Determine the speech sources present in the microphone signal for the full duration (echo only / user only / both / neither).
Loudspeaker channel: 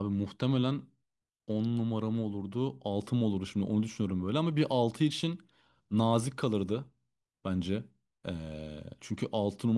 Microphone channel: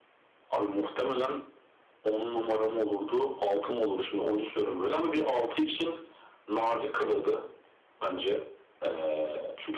echo only